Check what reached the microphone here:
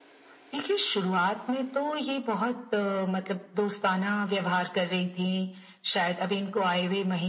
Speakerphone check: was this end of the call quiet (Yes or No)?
Yes